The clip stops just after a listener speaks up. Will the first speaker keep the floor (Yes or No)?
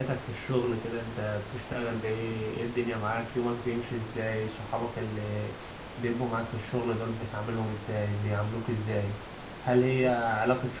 Yes